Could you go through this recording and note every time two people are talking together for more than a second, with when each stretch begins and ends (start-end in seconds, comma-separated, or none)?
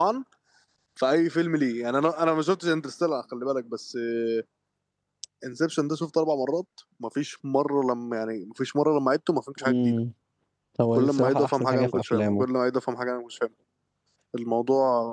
10.9-12.4